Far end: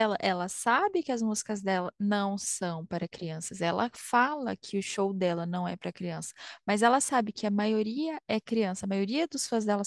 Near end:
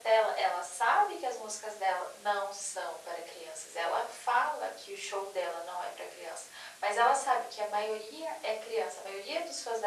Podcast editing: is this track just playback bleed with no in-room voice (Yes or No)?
Yes